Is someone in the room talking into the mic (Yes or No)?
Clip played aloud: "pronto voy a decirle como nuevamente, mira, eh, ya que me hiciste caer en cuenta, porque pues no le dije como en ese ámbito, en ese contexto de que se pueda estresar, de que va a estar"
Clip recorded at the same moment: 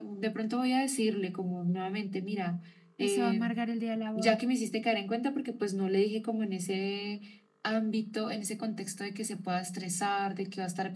Yes